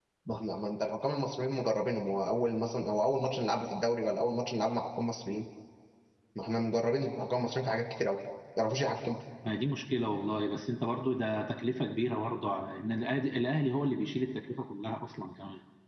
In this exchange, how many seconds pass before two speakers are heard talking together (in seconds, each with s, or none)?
none